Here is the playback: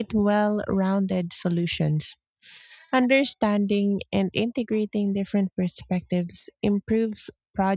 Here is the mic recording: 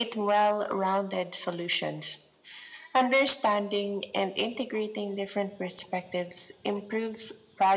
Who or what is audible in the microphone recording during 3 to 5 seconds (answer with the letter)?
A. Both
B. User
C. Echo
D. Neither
C